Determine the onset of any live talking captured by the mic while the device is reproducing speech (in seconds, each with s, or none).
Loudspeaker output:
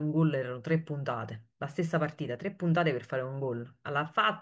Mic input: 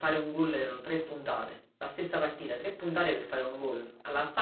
none